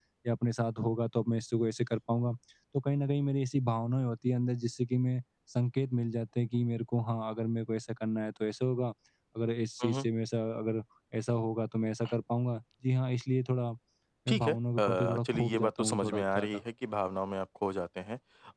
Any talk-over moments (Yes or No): Yes